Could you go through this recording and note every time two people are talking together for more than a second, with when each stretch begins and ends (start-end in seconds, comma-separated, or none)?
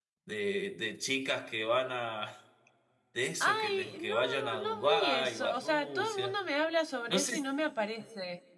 3.4-6.4